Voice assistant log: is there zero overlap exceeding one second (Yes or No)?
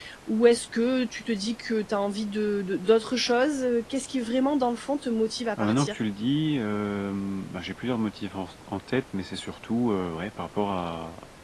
Yes